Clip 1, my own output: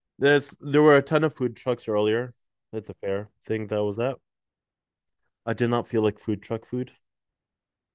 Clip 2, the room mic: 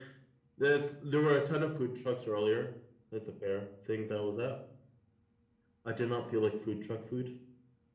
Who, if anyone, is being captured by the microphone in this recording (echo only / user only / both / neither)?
echo only